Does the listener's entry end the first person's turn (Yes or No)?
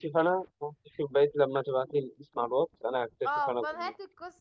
Yes